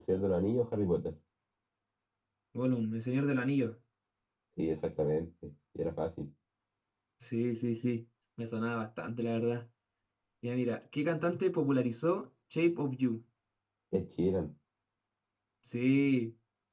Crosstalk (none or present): none